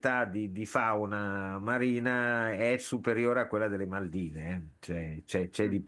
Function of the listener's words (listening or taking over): listening